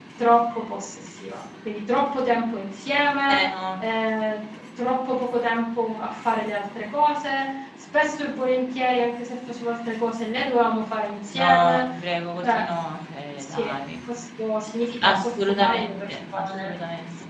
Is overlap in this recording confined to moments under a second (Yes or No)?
No